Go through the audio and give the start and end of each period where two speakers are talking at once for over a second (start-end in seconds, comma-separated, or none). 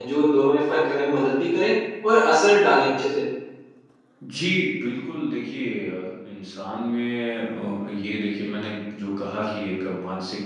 none